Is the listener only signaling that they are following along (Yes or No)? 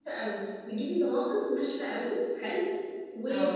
Yes